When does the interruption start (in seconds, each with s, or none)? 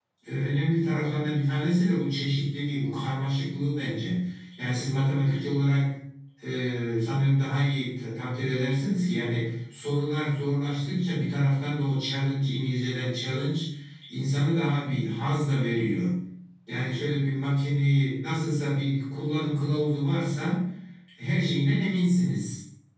none